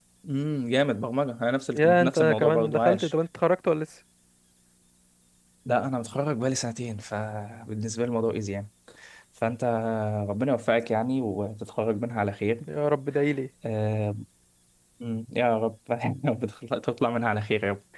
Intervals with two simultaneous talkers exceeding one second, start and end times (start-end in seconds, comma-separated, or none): 1.8-3.1